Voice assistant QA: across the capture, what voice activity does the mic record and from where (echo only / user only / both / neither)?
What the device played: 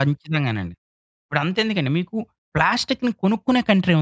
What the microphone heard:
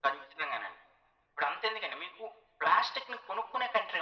echo only